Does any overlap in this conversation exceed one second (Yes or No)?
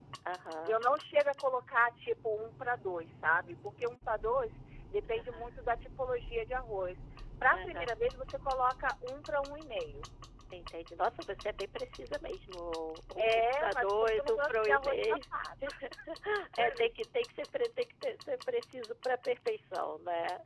Yes